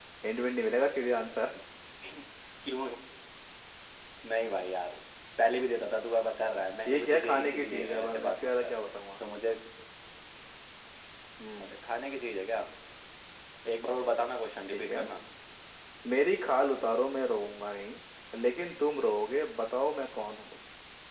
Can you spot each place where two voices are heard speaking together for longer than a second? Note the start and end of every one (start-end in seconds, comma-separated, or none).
6.9-8.7